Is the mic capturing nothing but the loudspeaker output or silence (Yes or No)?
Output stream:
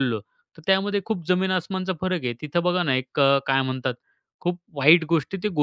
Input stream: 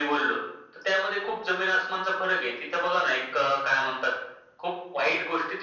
Yes